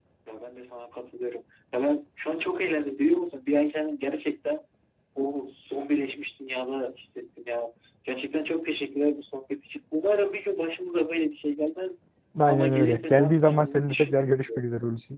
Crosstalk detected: Yes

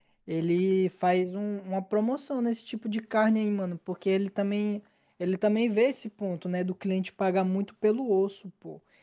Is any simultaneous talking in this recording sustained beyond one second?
No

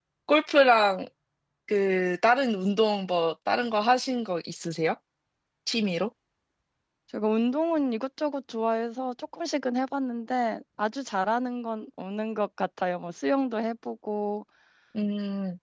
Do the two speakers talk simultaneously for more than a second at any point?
No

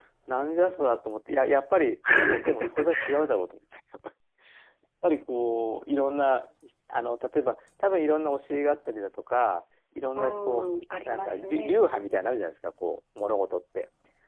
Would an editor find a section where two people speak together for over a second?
Yes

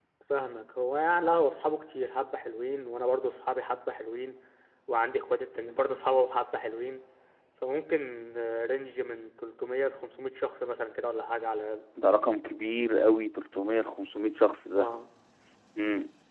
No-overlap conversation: Yes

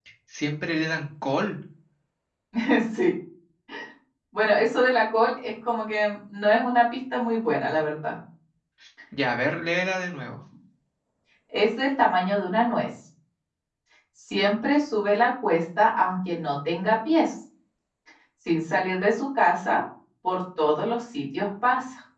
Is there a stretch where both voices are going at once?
No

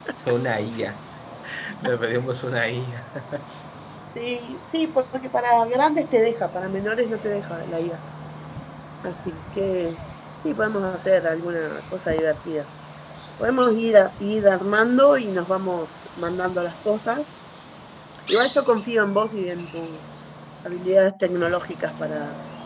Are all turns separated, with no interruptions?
Yes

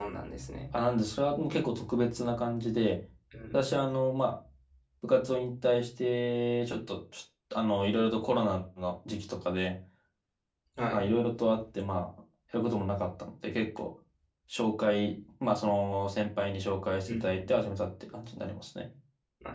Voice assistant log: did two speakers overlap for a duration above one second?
No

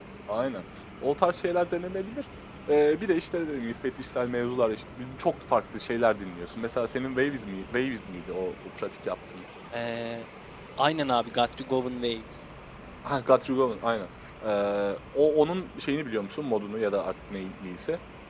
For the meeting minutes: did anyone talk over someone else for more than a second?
No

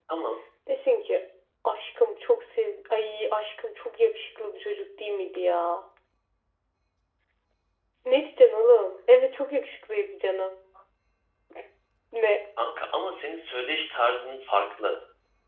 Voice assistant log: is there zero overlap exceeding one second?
Yes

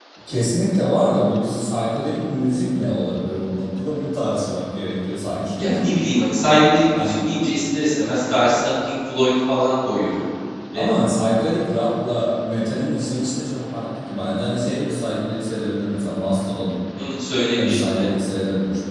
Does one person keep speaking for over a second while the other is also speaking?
No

